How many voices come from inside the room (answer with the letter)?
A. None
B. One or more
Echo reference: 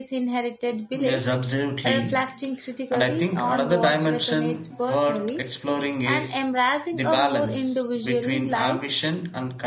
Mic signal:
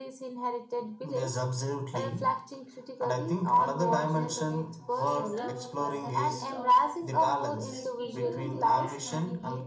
B